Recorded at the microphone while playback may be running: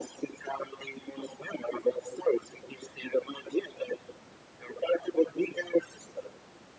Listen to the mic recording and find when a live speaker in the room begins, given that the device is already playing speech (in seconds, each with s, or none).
none